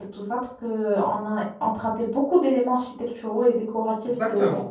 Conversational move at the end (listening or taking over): taking over